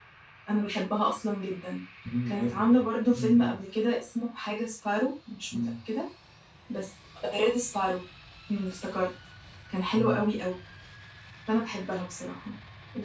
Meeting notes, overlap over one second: present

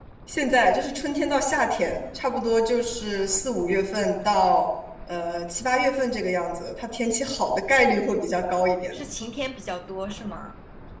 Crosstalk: none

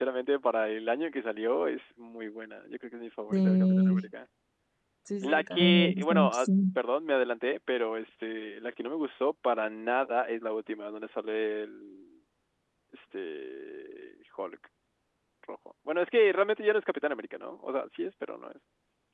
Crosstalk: present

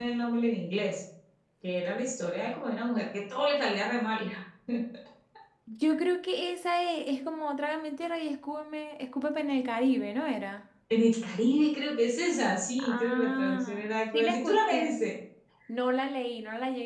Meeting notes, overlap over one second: present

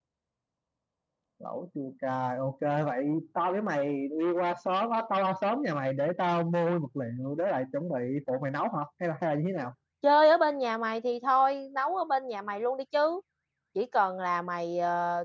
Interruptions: none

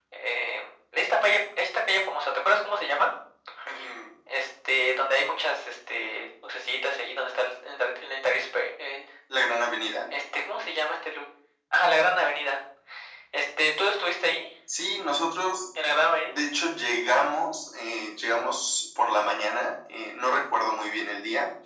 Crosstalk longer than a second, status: none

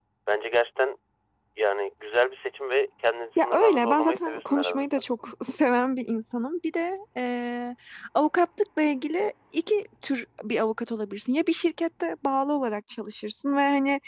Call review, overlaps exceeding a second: present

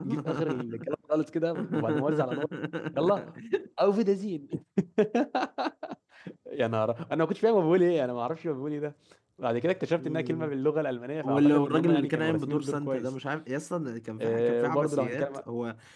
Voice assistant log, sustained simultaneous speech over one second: present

